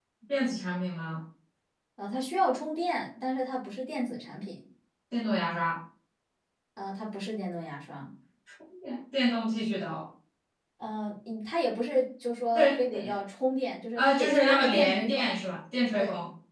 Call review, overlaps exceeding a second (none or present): present